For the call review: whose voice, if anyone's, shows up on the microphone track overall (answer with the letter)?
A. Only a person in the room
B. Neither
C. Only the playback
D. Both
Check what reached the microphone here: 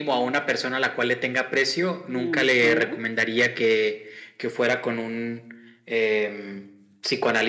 D